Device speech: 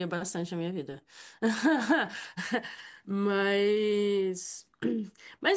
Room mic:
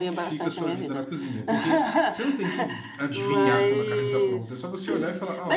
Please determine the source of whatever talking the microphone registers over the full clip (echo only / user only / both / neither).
both